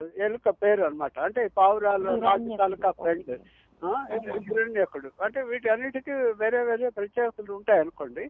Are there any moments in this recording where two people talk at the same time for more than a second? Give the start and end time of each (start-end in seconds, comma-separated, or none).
2.0-3.3